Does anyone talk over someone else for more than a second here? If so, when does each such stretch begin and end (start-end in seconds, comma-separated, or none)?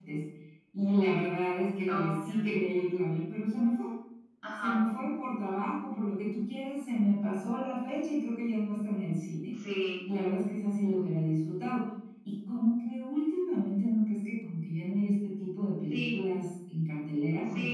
none